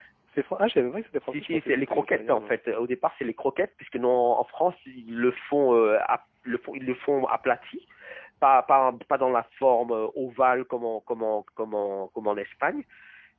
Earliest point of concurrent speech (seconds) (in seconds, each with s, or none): 1.3 s